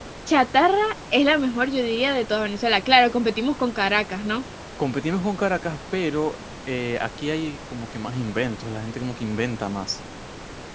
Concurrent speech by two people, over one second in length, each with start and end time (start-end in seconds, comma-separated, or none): none